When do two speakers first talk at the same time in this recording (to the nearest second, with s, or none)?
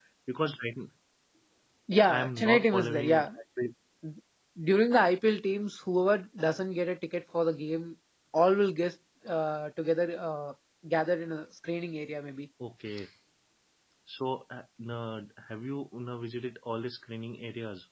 2 s